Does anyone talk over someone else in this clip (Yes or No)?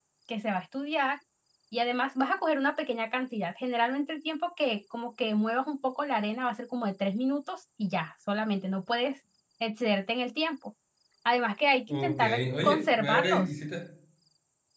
Yes